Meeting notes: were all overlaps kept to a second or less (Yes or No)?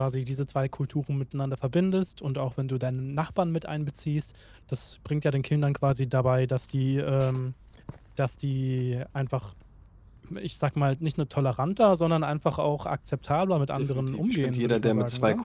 No